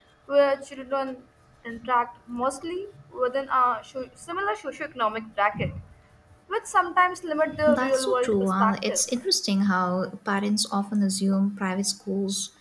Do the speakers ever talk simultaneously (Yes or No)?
Yes